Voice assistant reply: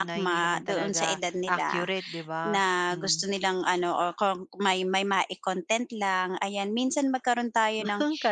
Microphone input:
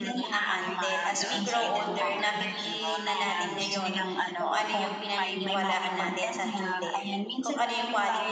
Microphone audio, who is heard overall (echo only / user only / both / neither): both